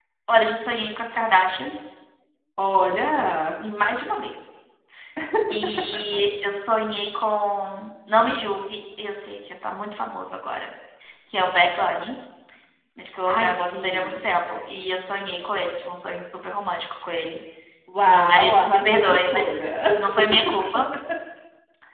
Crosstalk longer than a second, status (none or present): present